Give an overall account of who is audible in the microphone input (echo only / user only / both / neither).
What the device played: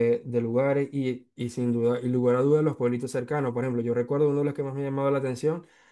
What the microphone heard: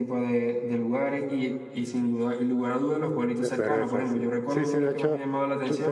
both